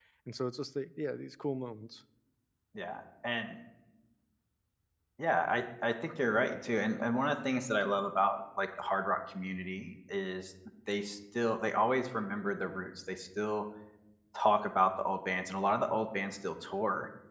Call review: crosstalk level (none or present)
none